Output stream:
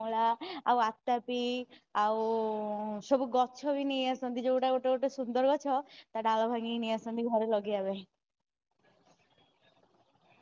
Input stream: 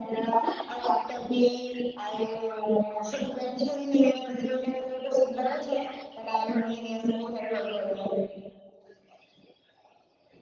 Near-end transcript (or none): none